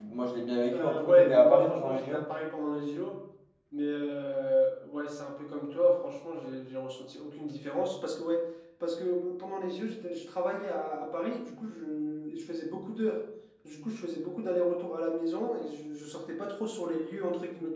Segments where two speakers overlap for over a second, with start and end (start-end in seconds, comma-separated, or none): 0.7-2.2